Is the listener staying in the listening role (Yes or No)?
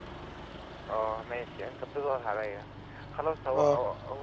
Yes